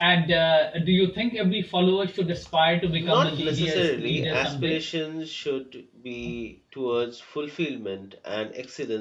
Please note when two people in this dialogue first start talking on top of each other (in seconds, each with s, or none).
3.0 s